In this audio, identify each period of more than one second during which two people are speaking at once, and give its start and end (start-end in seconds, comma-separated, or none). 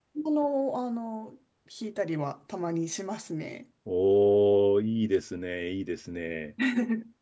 none